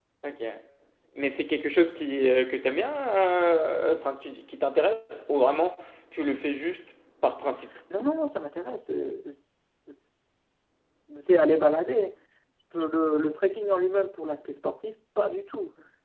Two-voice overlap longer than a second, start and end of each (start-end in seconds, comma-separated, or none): none